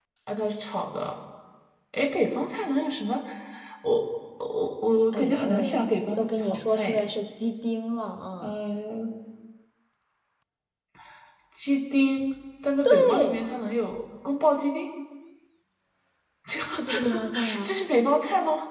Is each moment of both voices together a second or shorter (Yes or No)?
No